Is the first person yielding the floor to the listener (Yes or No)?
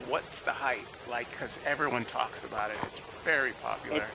Yes